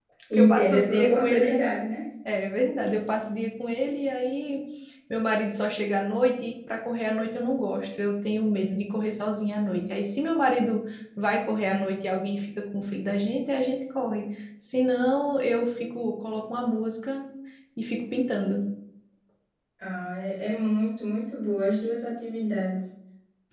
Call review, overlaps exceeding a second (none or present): present